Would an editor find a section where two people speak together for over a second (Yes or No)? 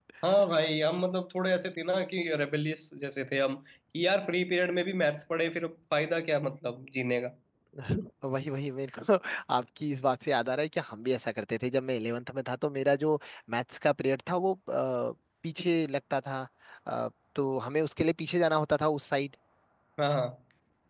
No